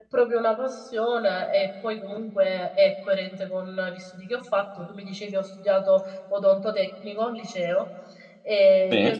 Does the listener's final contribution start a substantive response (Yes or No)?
No